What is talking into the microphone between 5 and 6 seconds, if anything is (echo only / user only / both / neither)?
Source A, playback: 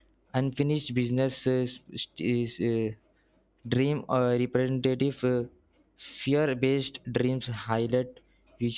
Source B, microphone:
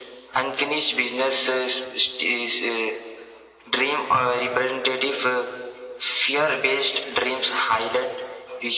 echo only